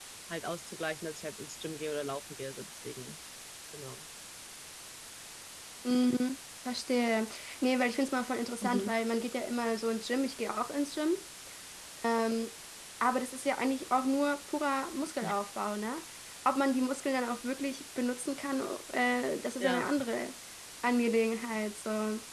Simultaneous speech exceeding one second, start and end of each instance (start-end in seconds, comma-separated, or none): none